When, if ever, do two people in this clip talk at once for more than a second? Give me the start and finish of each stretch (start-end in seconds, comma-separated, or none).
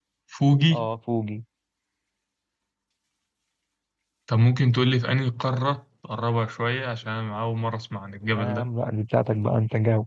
none